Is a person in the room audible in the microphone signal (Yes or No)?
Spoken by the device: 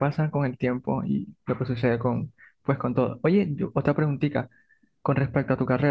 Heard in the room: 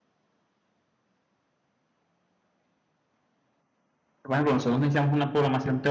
Yes